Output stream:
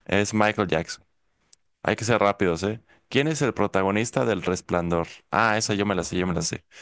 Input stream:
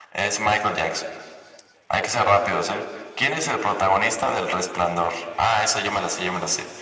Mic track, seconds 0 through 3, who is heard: echo only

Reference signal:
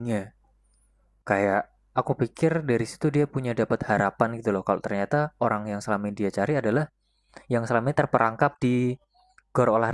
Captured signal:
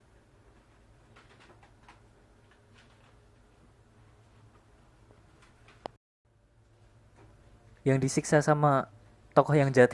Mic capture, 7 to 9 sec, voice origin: user only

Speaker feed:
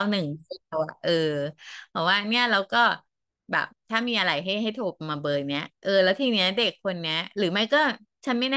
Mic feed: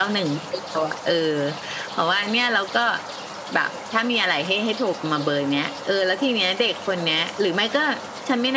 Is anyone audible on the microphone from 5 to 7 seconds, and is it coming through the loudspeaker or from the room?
echo only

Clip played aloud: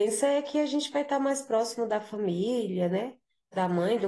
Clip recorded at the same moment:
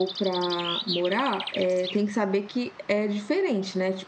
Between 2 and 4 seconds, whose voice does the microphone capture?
user only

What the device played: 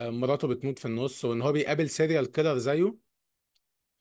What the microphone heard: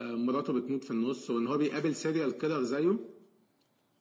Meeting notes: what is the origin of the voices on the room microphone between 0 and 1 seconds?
echo only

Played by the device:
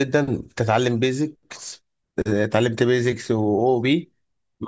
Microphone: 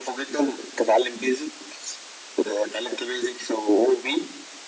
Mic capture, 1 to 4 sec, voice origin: echo only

